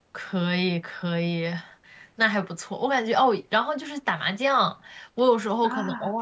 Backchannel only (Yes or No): Yes